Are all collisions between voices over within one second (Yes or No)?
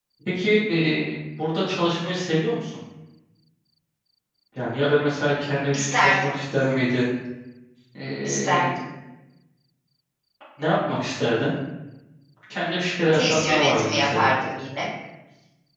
No